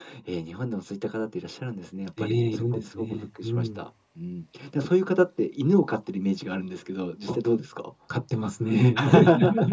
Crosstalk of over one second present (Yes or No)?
Yes